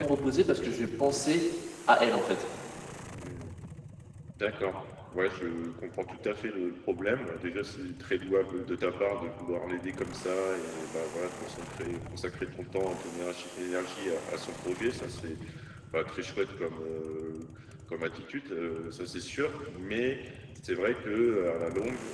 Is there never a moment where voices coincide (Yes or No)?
Yes